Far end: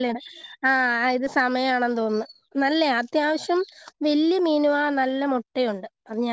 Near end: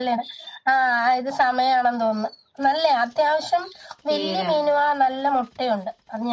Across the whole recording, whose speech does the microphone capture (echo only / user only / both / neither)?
both